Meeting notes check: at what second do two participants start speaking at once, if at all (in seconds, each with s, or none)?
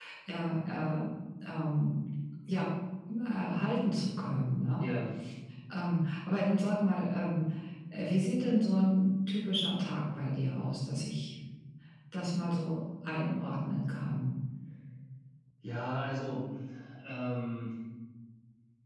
none